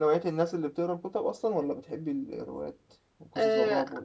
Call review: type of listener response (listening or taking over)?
taking over